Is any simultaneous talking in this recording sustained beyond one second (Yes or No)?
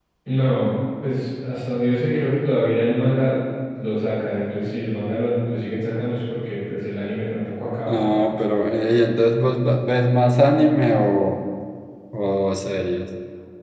No